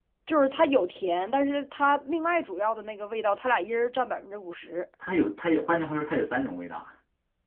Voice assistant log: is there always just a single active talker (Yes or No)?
Yes